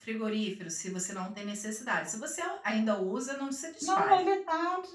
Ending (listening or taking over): taking over